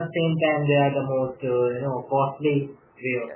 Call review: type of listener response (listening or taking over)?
taking over